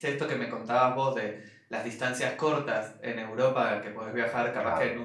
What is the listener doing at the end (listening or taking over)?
listening